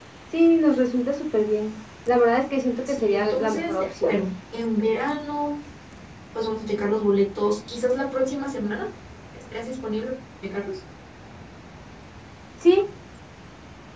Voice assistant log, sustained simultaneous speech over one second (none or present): present